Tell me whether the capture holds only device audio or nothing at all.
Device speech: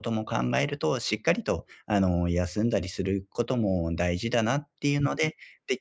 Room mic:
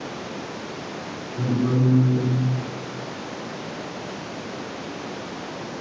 No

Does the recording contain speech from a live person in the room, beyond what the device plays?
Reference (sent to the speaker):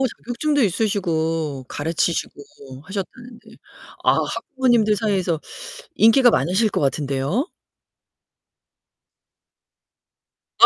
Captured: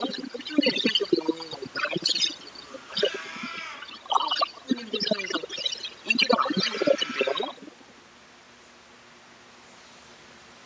No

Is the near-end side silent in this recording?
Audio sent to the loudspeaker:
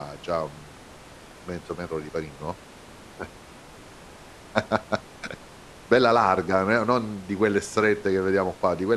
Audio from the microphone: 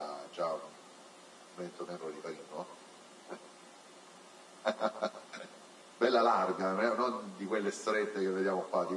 Yes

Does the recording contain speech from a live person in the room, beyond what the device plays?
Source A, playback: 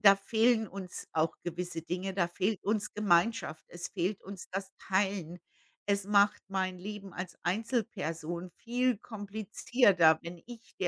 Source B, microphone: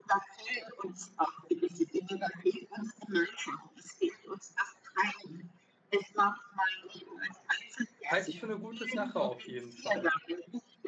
Yes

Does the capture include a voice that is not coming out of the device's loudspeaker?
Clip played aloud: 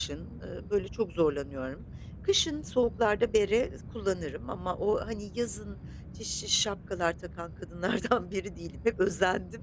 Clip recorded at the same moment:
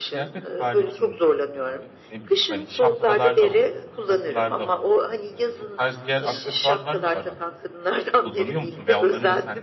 Yes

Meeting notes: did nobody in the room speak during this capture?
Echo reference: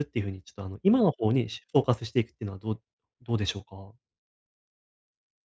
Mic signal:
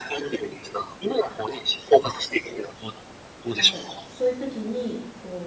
No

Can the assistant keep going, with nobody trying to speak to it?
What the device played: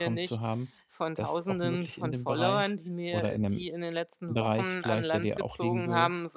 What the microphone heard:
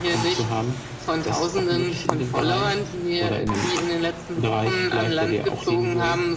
Yes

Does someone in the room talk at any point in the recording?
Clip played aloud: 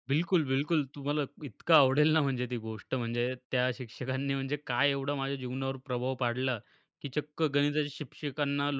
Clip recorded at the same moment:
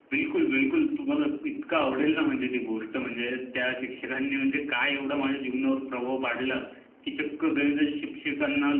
No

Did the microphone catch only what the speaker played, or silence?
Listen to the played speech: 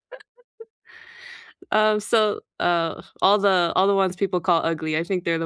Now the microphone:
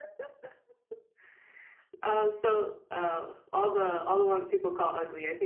Yes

